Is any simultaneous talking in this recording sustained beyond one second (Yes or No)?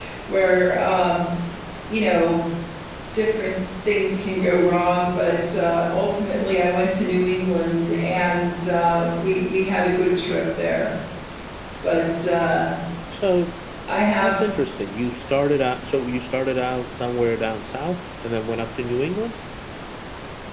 No